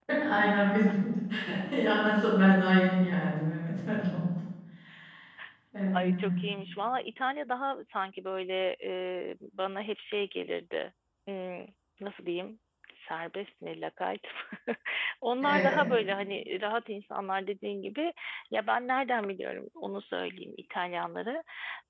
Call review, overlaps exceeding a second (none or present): none